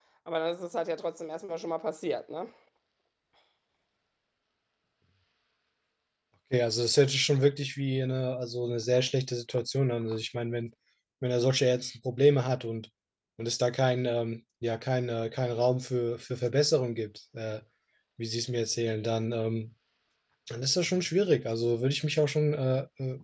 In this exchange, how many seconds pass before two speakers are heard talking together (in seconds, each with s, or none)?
none